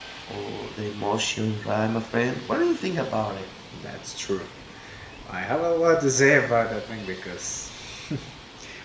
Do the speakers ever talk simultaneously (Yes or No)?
No